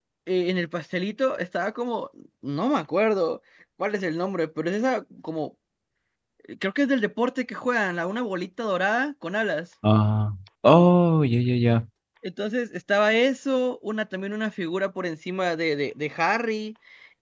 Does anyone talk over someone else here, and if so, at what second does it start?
none

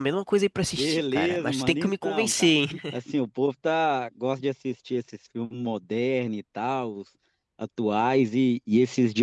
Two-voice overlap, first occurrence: 0.8 s

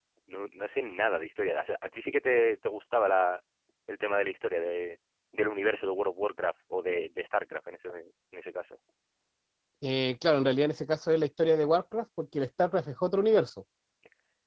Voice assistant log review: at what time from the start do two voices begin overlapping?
none

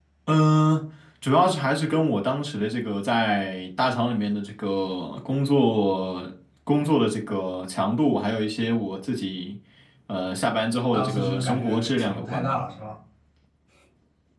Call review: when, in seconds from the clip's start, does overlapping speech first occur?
10.9 s

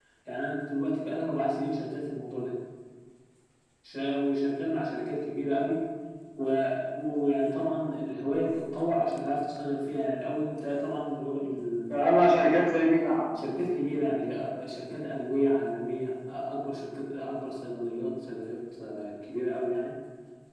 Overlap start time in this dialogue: none

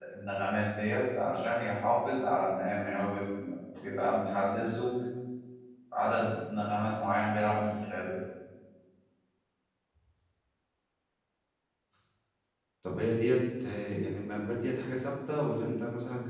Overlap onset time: none

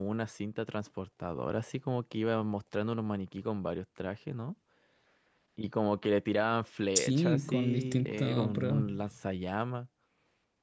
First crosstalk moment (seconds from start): 7.0 s

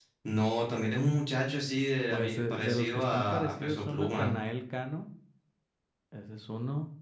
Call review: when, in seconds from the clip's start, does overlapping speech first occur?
2.1 s

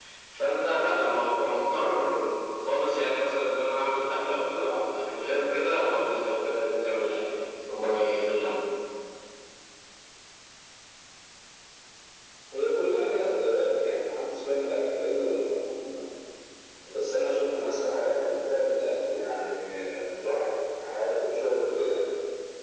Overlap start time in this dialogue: none

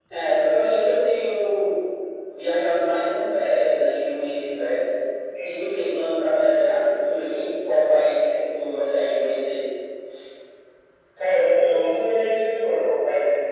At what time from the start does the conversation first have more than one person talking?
none

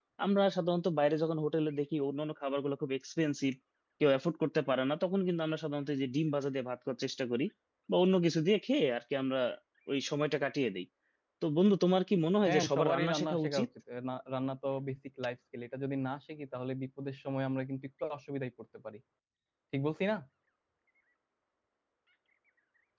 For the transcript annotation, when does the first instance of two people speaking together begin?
12.5 s

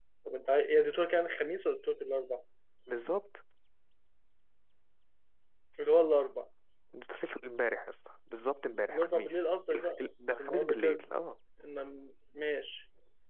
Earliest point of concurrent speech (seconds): 8.9 s

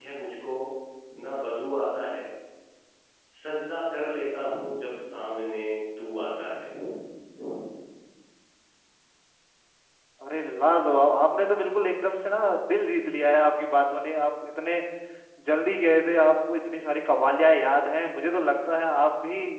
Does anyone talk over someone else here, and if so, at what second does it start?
none

